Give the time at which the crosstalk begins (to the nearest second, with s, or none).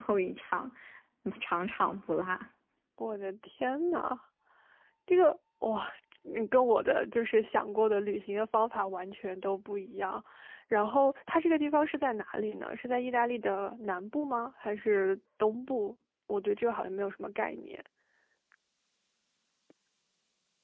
none